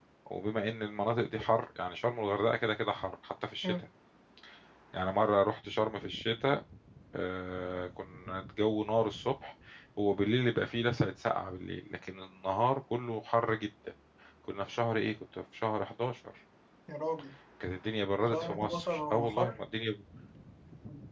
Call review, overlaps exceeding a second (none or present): present